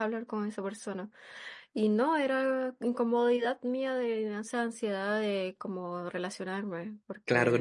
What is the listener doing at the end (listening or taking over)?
taking over